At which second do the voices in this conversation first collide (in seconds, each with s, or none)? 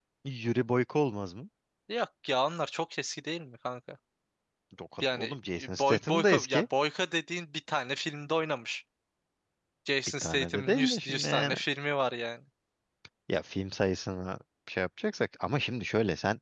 5.0 s